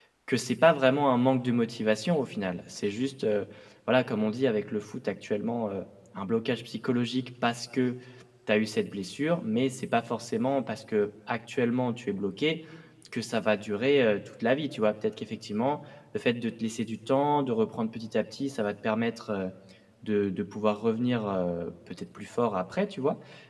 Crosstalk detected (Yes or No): No